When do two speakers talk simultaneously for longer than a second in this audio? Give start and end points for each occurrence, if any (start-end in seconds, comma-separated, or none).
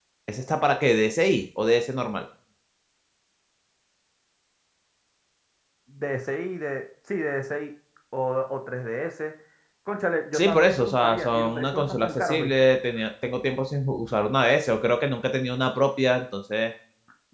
10.3-12.5